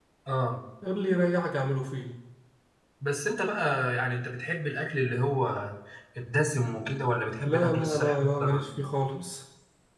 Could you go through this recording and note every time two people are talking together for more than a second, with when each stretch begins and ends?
7.4-8.7

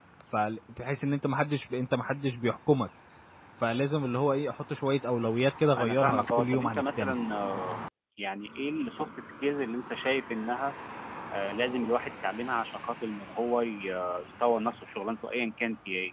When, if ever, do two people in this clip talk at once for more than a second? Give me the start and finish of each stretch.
5.8-7.2

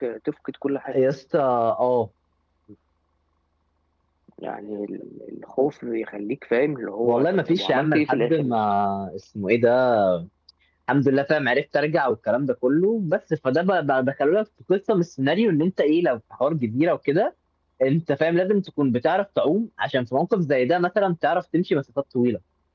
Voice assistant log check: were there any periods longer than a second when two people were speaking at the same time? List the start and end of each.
7.0-8.5

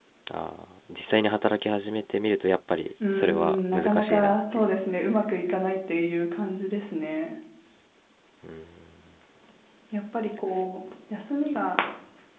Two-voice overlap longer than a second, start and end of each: 3.1-4.7

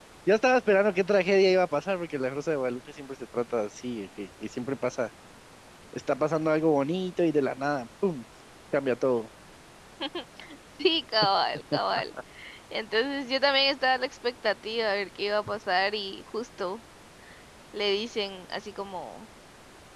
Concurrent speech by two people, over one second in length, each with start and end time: none

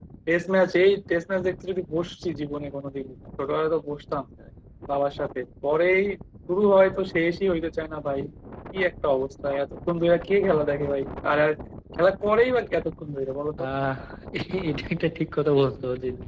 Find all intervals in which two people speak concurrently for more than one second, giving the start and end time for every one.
none

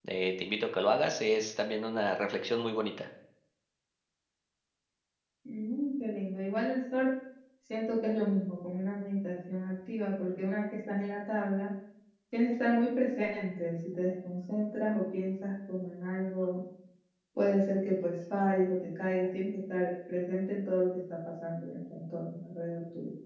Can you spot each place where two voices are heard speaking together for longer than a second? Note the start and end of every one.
none

